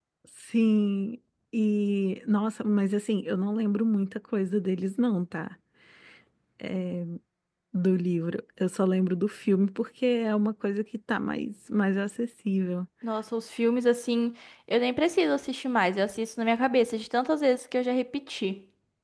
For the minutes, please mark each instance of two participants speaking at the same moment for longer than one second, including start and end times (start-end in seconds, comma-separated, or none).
none